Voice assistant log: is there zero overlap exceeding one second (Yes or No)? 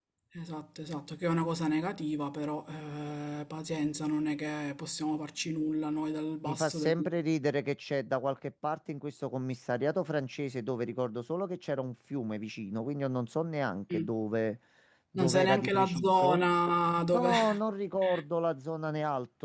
No